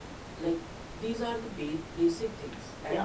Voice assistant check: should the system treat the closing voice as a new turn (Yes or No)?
No